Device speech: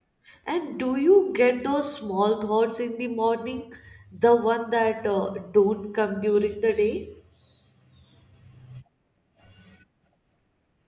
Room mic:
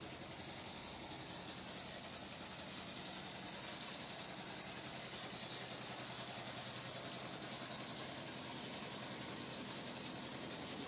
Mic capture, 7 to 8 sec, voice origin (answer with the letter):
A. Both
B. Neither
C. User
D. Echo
B